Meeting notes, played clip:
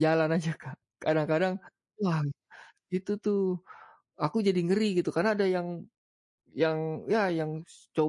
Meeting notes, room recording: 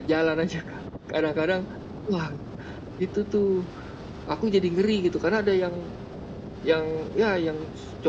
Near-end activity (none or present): none